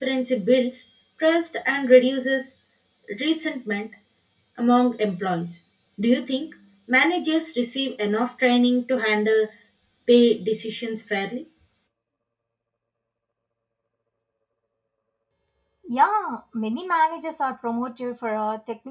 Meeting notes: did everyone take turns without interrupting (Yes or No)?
Yes